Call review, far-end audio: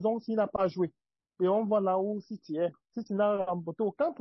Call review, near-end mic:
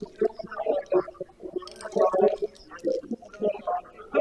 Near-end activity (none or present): none